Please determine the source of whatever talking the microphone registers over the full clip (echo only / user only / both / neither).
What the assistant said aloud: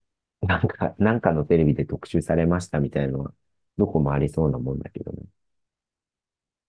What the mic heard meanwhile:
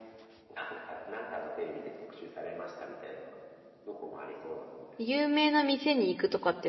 both